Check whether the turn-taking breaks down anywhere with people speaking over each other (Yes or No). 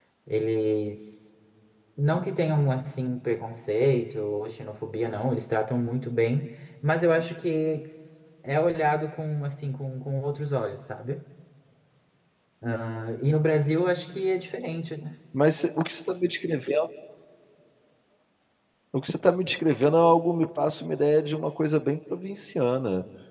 No